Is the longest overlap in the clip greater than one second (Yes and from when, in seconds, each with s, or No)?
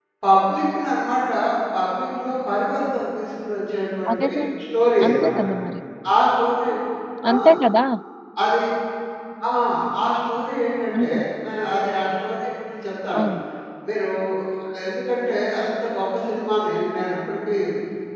No